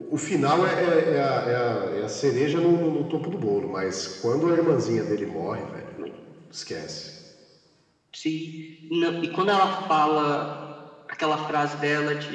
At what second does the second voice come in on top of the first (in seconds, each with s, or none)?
none